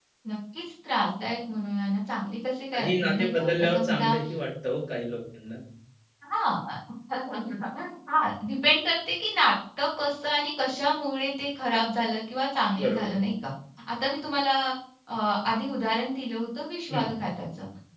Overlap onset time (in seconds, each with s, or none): 2.7 s